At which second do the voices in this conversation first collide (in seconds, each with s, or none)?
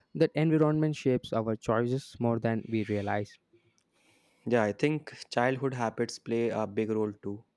none